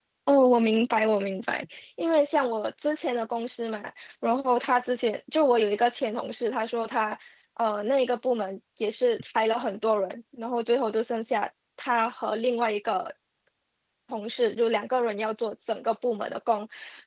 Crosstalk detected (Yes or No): No